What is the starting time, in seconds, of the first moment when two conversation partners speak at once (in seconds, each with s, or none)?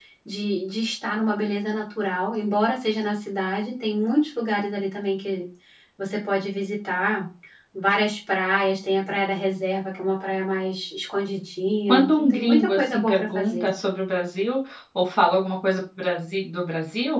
11.9 s